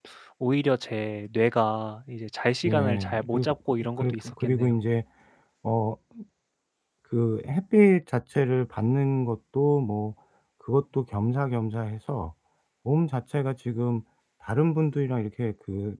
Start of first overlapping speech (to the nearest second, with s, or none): 3 s